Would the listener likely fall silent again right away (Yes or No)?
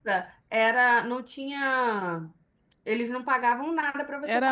No